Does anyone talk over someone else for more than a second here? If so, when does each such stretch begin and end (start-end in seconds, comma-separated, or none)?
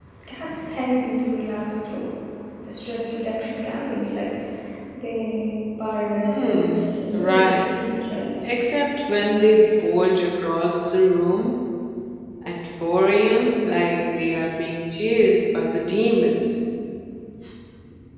6.2-7.7